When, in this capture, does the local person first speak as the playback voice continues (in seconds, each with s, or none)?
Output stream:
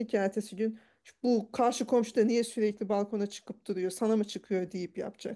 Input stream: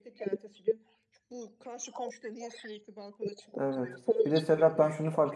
3.6 s